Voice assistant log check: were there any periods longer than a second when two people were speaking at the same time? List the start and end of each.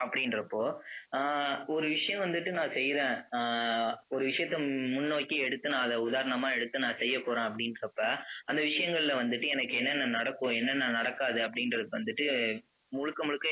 none

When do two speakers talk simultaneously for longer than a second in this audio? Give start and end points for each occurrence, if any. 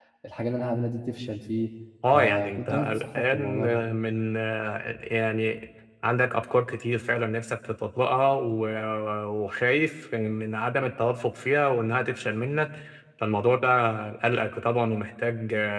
2.1-3.8

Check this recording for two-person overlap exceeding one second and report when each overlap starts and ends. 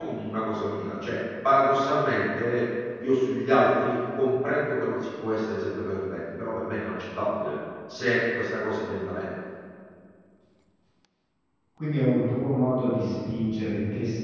none

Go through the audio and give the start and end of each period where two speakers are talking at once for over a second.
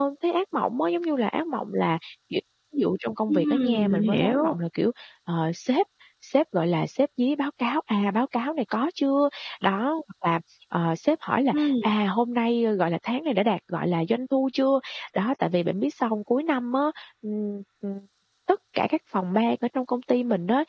3.3-4.5

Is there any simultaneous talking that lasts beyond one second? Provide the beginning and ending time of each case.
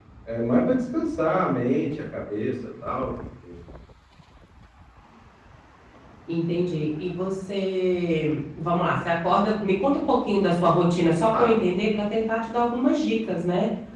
none

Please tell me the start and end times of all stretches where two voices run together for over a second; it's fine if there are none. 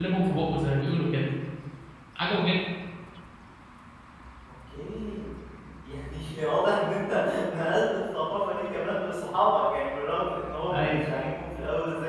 none

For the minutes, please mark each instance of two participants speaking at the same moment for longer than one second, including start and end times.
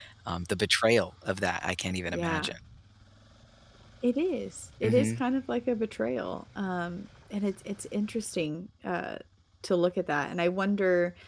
none

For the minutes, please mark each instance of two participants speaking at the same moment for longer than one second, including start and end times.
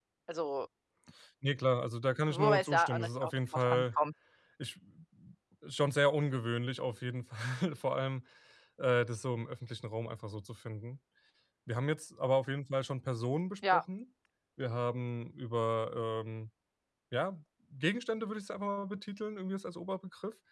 2.3-3.8

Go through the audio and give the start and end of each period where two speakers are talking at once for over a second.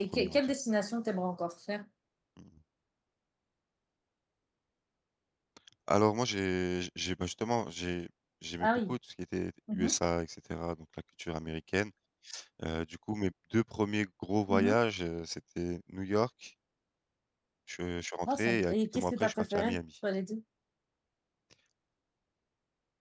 18.3-19.8

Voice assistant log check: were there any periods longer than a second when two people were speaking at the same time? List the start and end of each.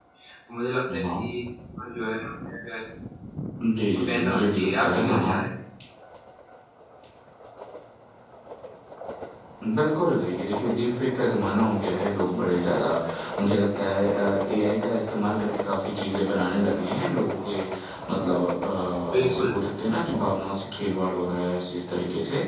4.0-5.4

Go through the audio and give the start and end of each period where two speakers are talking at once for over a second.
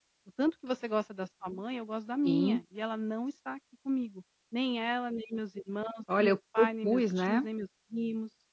6.2-7.5

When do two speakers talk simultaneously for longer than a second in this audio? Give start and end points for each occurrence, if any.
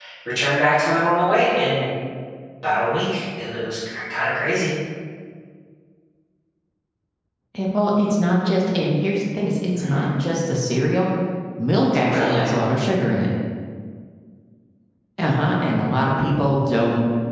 none

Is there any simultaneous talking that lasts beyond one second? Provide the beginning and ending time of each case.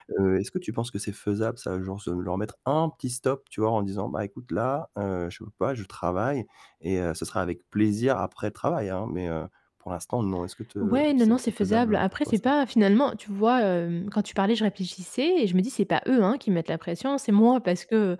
10.8-12.4

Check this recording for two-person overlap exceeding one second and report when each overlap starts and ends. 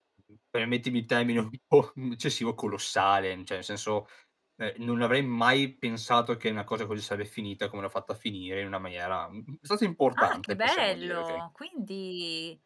10.2-11.4

